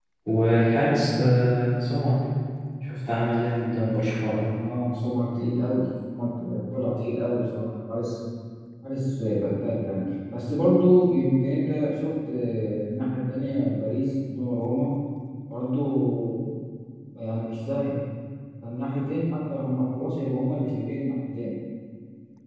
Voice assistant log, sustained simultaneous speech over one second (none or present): none